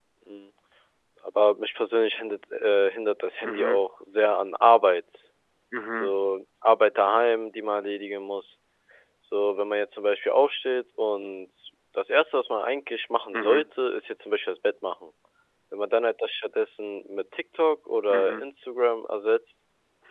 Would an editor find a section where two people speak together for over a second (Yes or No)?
No